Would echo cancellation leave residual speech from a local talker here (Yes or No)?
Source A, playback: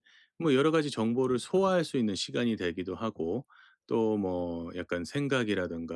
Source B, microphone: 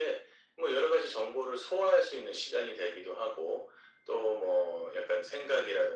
No